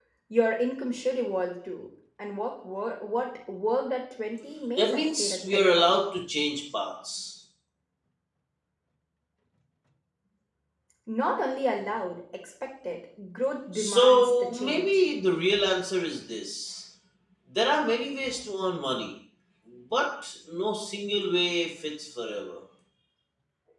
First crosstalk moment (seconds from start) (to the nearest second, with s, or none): 5 s